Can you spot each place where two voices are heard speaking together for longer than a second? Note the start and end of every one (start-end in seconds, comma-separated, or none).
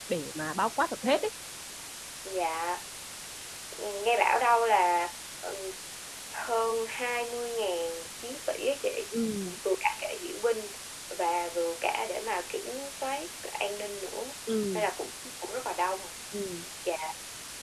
none